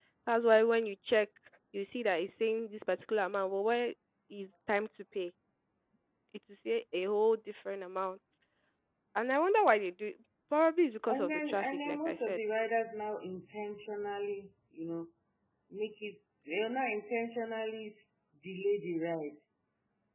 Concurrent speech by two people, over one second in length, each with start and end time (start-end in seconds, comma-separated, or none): 11.1-12.4